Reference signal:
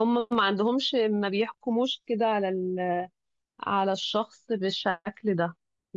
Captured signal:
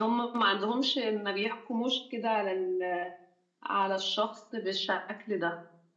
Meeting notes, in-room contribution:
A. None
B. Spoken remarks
A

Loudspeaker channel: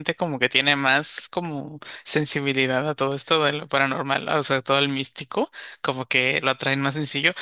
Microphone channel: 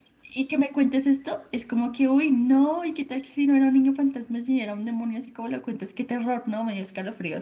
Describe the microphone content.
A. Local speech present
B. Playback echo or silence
A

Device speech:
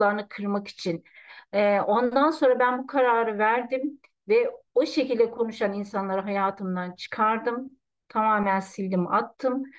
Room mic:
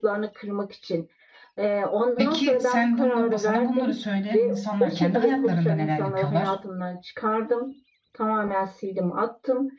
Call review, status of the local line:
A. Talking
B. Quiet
A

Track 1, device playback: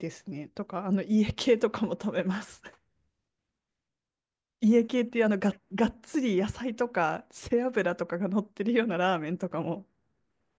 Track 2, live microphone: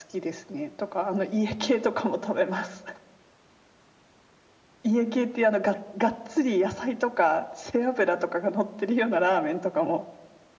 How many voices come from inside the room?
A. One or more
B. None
B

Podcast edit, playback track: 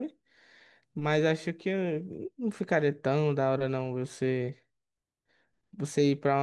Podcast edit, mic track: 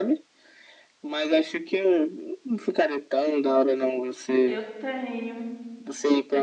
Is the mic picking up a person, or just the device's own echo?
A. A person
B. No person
A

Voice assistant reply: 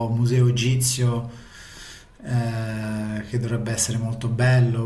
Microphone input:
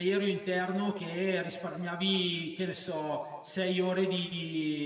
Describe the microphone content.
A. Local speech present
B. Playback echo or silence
A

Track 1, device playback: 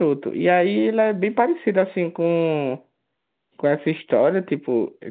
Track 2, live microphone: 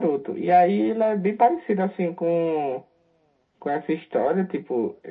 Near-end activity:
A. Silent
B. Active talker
A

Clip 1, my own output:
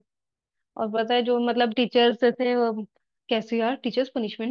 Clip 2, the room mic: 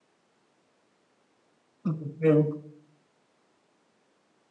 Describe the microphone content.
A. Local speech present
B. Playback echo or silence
A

